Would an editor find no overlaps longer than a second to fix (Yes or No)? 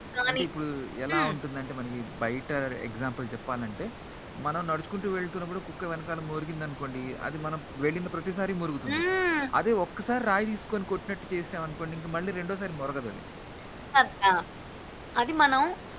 Yes